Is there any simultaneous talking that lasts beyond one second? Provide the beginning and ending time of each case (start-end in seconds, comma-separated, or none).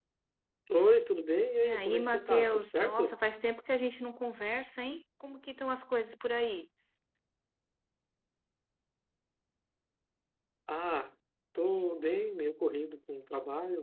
1.6-3.2